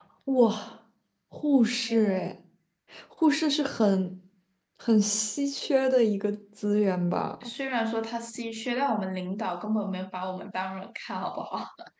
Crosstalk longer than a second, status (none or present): none